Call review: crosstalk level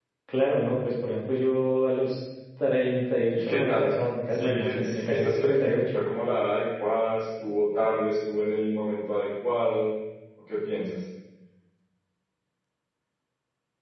present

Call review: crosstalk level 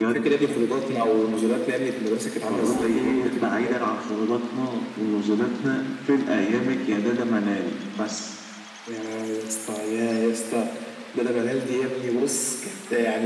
present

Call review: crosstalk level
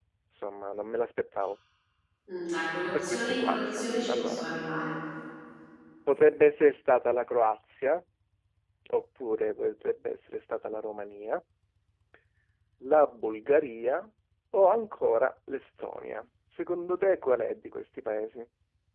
present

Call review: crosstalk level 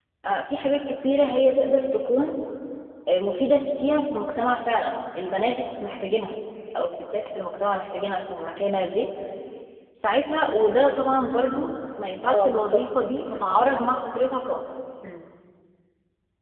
present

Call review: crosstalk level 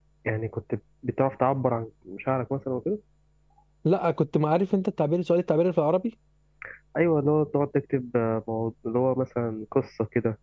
none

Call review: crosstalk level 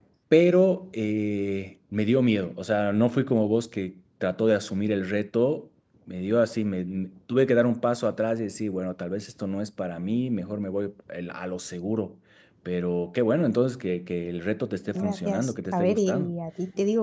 present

